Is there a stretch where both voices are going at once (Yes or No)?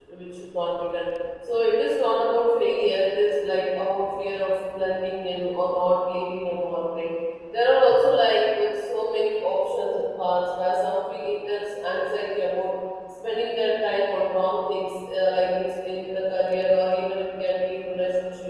No